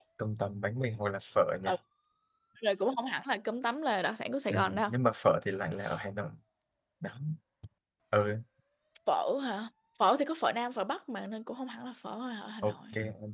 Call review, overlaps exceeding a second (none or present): none